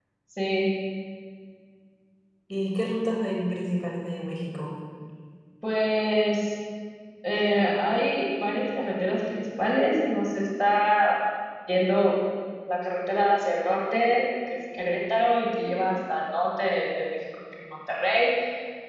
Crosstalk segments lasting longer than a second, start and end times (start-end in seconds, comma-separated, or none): none